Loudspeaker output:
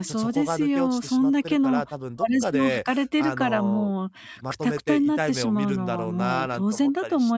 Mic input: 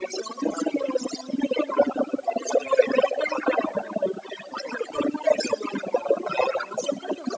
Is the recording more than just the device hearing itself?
No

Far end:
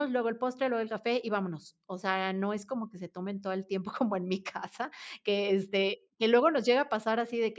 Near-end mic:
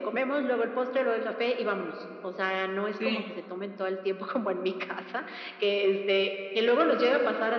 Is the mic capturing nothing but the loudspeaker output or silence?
No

